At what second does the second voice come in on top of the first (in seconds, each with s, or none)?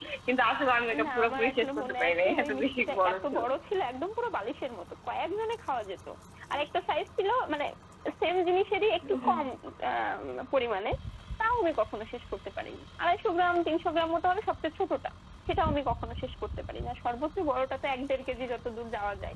1.1 s